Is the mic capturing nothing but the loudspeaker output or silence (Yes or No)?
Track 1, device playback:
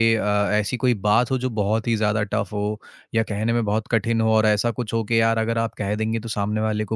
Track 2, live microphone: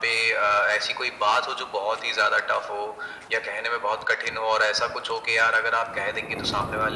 Yes